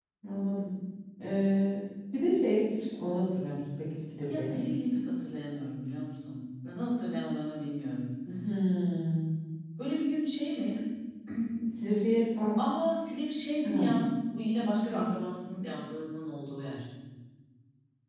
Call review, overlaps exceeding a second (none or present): none